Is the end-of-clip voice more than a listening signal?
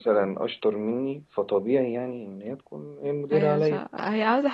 Yes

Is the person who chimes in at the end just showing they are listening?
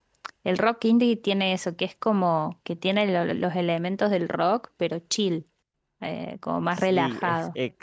No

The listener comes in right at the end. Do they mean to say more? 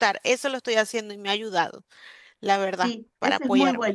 Yes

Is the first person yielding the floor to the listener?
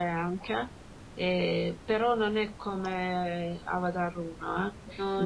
No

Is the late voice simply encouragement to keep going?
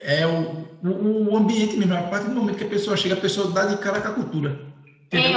No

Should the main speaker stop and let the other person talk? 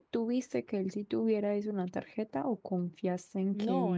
Yes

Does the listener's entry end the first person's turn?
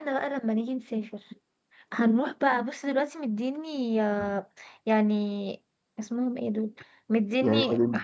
No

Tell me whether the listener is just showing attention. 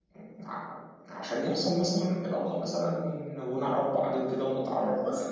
No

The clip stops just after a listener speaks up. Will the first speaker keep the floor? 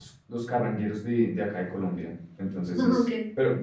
Yes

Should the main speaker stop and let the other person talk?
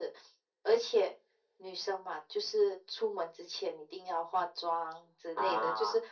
No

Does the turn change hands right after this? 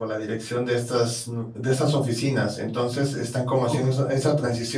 No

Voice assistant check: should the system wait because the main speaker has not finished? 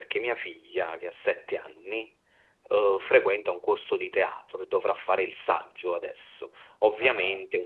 Yes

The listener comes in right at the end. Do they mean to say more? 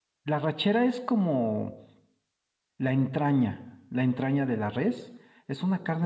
No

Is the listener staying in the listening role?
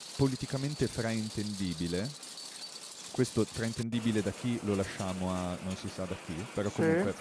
Yes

